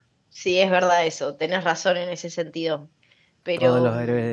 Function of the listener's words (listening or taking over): taking over